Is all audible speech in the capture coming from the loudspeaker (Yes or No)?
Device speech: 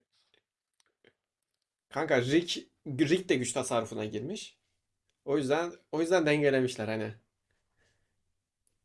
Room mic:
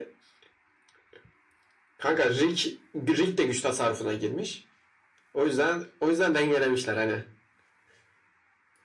Yes